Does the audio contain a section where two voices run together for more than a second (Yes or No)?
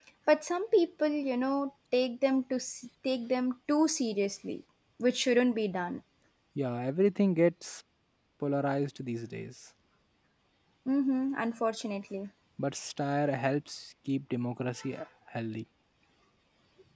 No